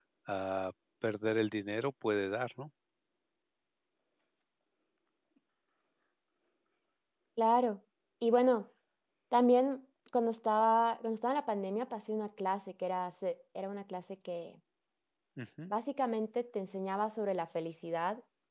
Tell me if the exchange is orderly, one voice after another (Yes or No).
Yes